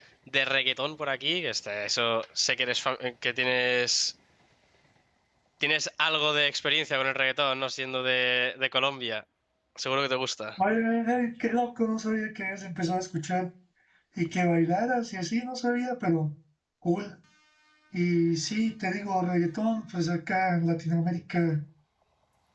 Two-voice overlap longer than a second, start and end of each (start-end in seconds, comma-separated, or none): none